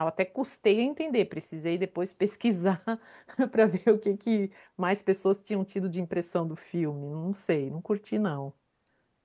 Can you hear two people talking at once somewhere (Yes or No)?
No